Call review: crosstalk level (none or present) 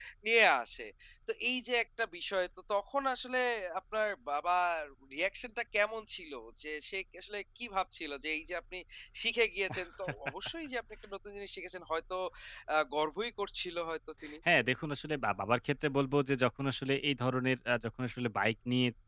none